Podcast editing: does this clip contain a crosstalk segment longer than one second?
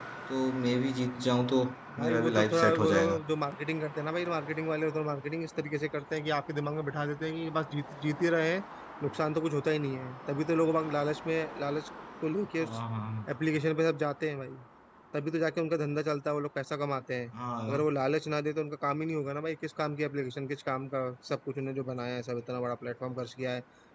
Yes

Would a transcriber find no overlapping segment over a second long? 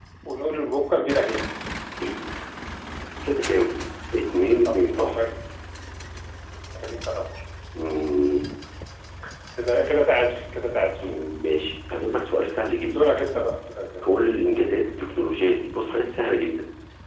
Yes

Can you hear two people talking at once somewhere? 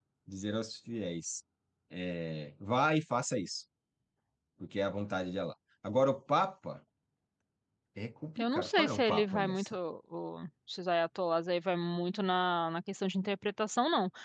Yes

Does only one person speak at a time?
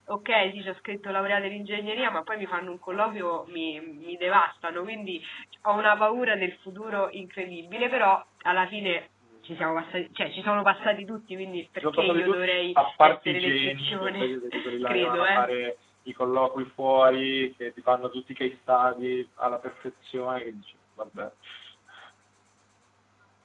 No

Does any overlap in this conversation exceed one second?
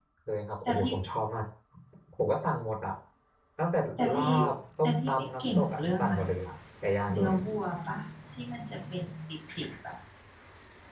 Yes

